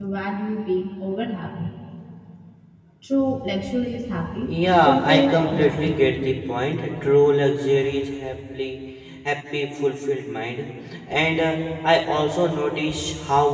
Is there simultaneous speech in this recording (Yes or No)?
Yes